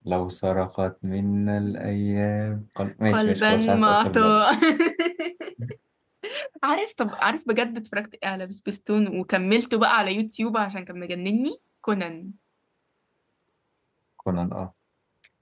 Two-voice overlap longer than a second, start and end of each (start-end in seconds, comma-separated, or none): 3.1-4.4